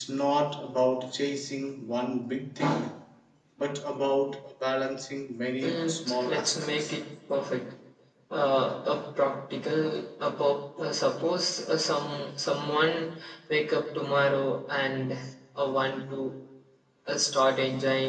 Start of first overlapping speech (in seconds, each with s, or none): 5.6 s